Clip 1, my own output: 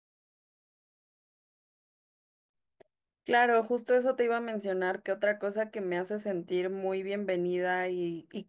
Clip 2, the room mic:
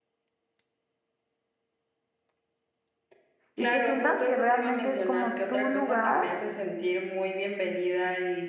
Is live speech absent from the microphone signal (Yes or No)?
No